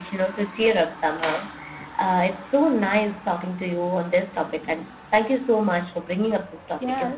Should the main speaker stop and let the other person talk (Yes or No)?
Yes